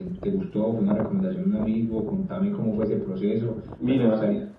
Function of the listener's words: taking over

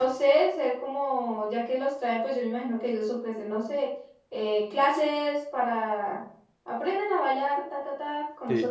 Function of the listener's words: taking over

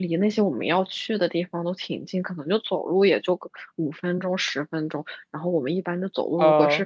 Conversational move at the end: listening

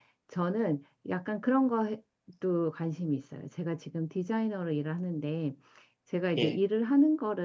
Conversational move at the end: listening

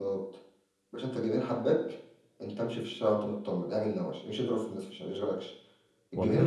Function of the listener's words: listening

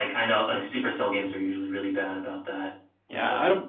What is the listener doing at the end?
taking over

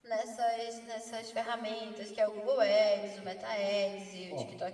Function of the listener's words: listening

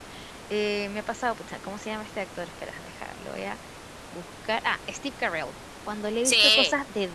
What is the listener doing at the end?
listening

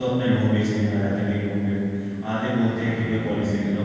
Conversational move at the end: listening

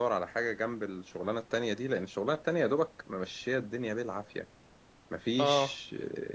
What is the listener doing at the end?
listening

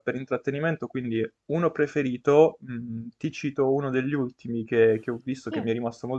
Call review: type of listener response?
listening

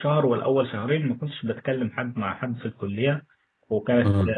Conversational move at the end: listening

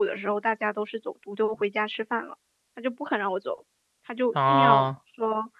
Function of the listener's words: listening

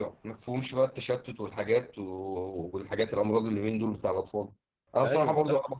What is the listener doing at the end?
listening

